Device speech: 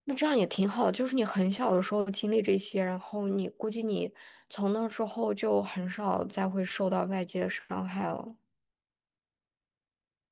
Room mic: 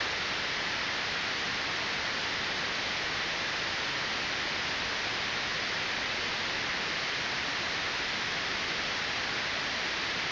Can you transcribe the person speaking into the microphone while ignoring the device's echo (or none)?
none